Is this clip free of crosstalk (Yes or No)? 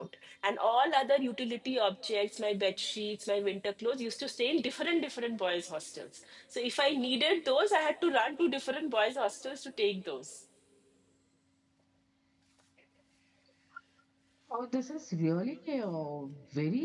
Yes